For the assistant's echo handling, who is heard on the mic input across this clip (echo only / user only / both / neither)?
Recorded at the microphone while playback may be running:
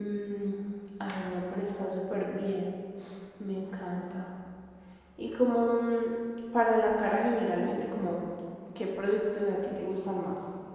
user only